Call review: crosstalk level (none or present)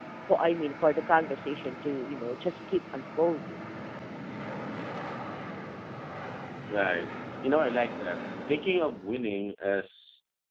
none